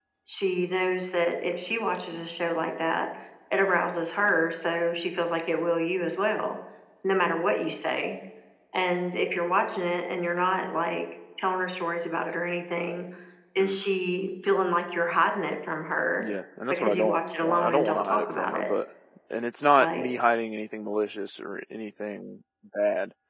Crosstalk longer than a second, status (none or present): present